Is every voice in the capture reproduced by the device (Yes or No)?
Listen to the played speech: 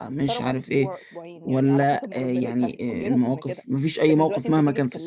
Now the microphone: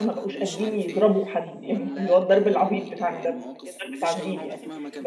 No